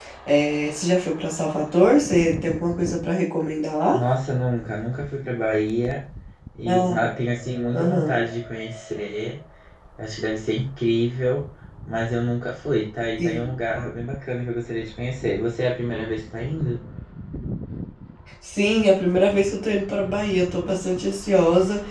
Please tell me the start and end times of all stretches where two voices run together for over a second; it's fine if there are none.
none

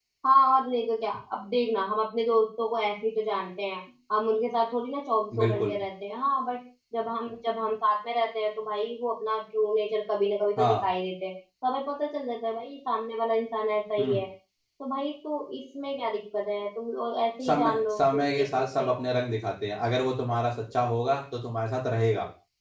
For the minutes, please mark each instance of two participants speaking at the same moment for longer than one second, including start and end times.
17.4-19.1

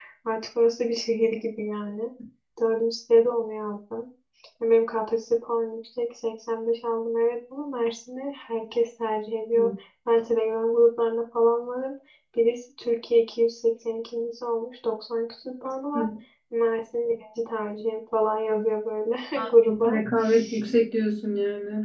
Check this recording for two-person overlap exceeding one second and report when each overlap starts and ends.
none

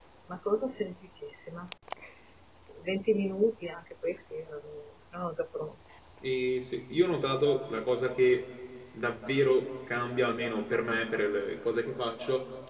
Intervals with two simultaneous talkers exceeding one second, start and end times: none

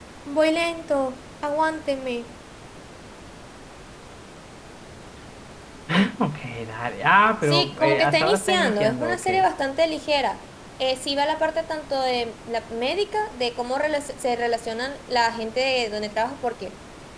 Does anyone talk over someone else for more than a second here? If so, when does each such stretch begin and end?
7.4-9.3

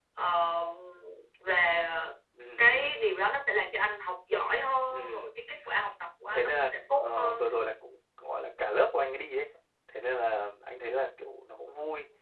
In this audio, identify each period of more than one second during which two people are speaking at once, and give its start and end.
6.3-7.6

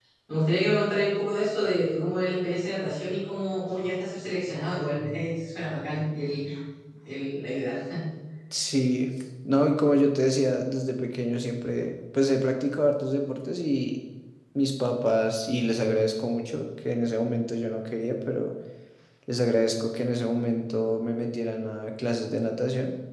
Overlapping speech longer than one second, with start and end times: none

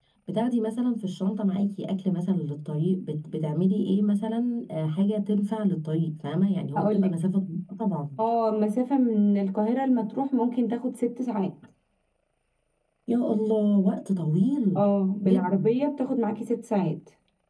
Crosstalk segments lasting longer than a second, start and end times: none

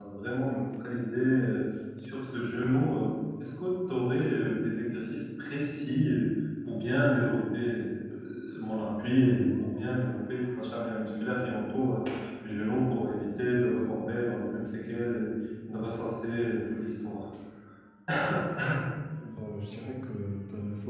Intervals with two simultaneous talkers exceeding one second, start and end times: none

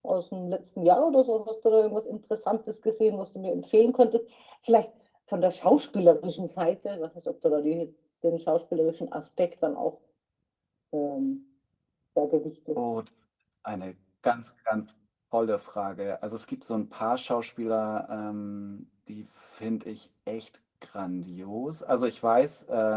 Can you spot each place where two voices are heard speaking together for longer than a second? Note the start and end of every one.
none

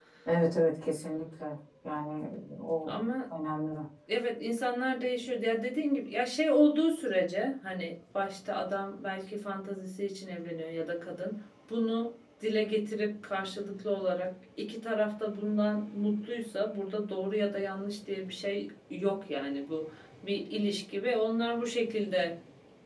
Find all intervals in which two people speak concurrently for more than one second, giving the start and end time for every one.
none

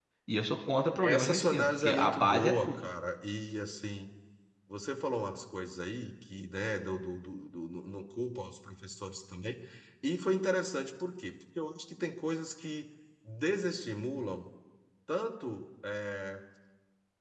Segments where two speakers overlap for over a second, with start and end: 1.0-2.9

